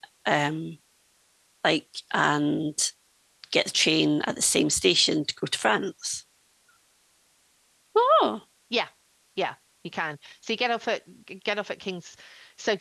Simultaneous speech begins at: none

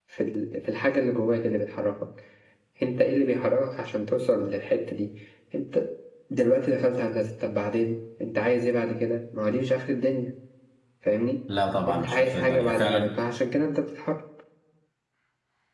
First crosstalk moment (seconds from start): 11.9 s

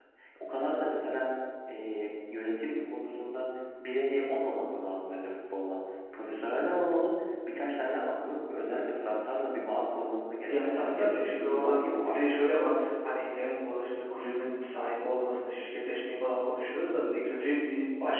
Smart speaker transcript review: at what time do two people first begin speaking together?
10.5 s

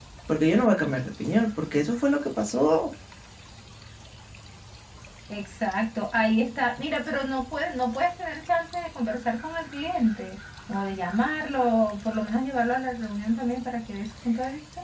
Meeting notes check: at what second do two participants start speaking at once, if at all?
none

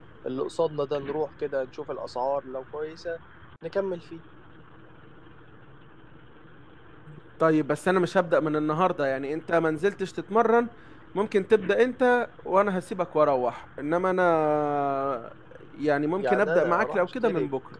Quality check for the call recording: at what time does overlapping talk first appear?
16.2 s

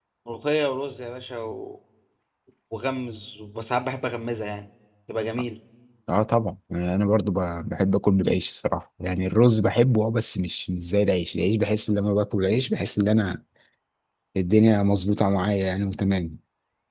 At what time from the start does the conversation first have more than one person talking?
none

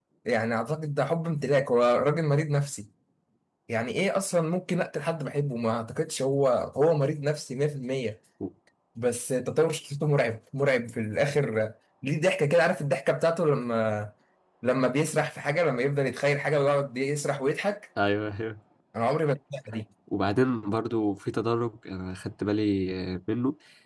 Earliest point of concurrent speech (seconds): none

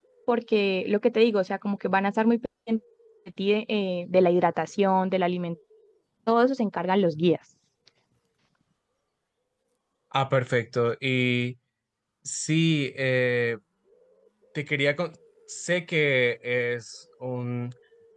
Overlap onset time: none

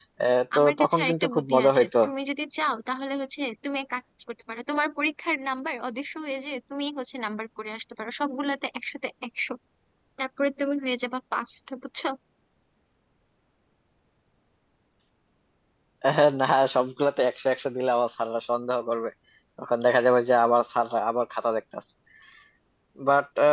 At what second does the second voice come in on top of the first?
0.6 s

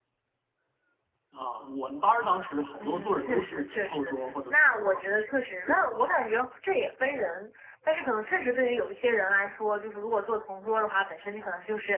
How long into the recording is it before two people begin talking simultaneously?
2.8 s

